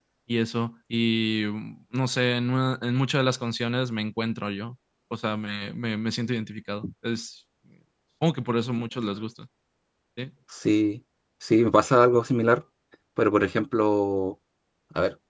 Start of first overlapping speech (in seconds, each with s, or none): none